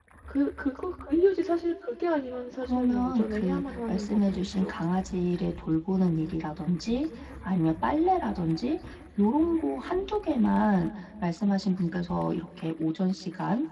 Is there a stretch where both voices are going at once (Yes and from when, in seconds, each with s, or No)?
Yes, from 2.6 s